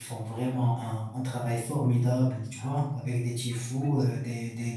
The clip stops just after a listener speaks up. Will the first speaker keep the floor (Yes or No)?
Yes